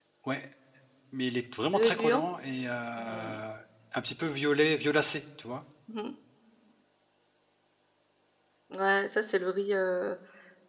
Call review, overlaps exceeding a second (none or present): none